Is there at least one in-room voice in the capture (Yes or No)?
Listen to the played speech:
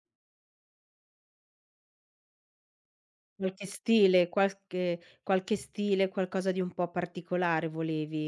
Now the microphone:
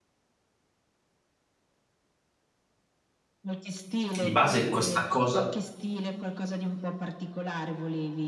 Yes